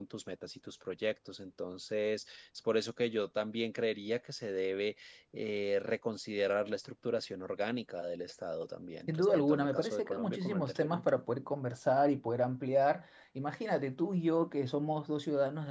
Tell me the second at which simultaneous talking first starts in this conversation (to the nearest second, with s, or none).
9 s